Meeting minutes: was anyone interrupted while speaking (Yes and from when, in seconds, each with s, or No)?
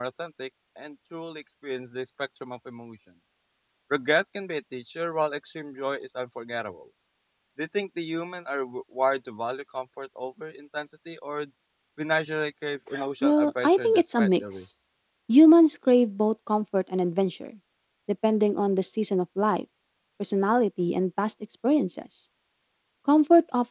Yes, from 13.2 s